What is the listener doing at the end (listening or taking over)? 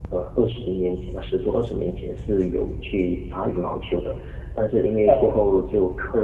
listening